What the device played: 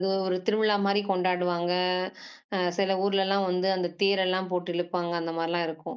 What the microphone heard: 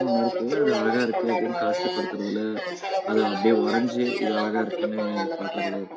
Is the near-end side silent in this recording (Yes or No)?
No